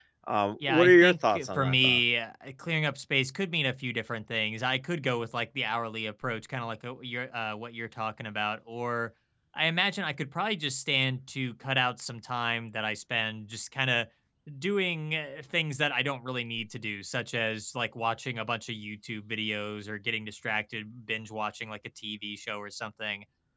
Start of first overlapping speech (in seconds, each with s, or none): 0.7 s